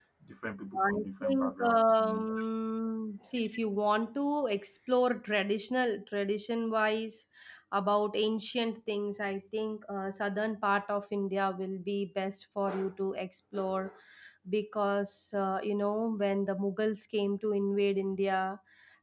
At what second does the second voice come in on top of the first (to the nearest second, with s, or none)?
1 s